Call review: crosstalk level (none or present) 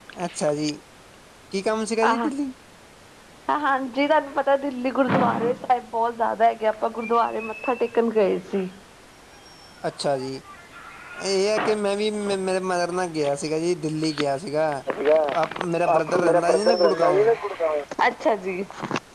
present